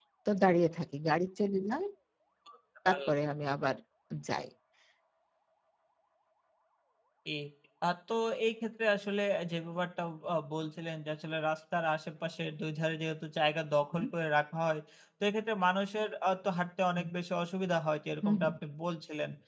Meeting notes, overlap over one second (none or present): none